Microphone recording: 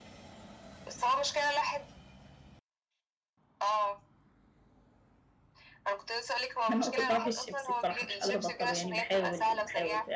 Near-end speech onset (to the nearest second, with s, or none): 7 s